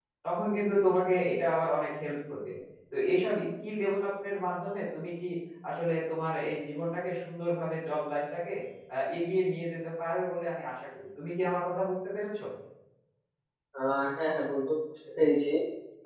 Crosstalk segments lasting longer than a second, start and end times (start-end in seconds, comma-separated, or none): none